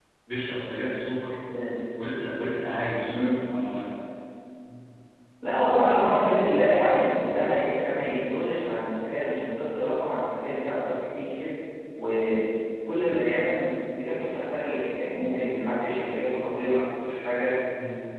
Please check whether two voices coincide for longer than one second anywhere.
No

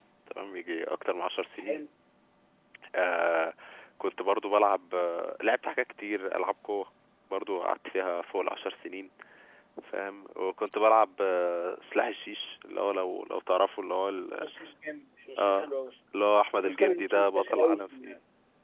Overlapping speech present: Yes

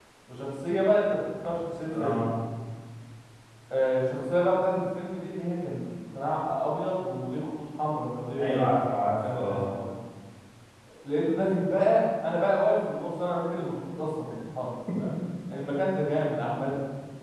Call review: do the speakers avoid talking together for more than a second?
Yes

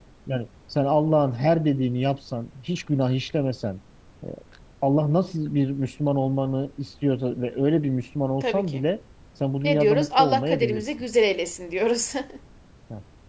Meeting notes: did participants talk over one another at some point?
Yes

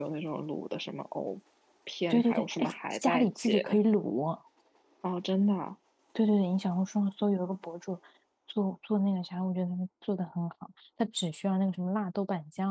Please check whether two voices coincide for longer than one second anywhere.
Yes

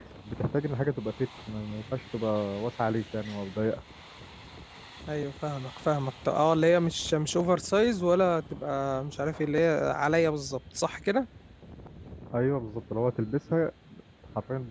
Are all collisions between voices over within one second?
Yes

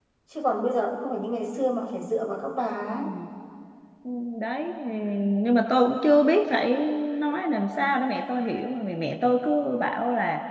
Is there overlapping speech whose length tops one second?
No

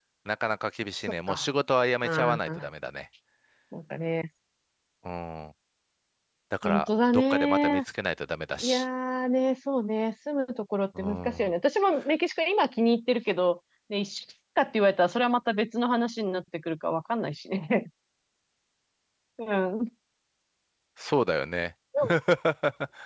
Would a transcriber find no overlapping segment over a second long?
No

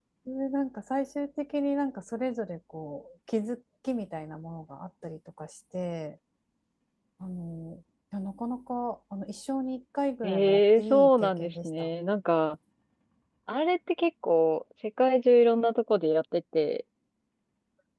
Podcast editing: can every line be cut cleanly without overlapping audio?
No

